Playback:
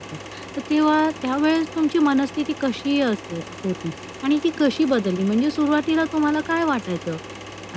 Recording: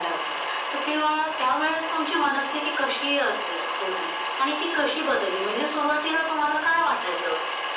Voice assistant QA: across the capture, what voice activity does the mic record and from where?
echo only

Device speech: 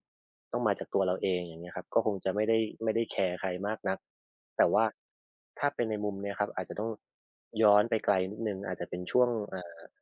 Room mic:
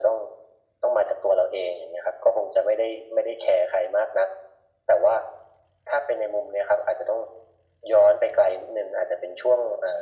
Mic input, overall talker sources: echo only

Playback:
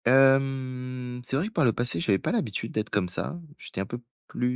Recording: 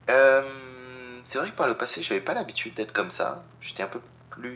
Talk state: echo only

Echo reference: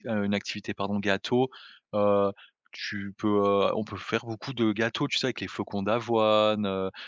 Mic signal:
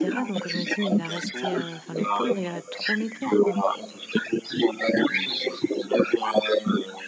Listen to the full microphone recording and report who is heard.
both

